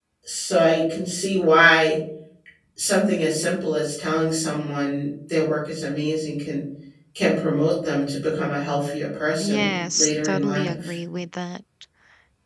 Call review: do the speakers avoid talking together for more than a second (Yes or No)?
No